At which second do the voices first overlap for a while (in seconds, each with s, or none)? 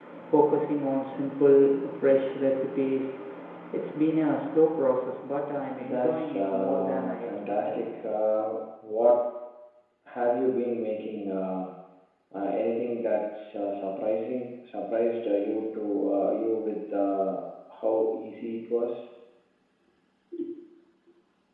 5.8 s